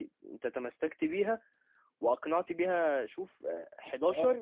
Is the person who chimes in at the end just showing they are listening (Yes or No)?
Yes